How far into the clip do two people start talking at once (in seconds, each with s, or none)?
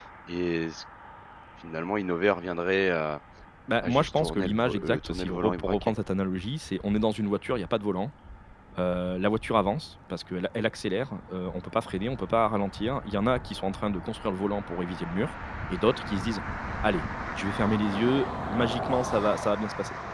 3.8 s